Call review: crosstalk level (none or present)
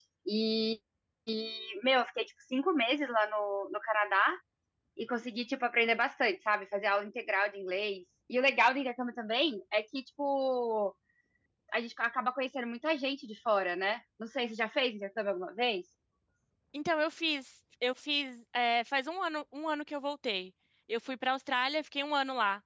none